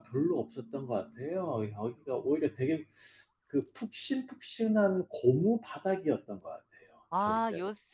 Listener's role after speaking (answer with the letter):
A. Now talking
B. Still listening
A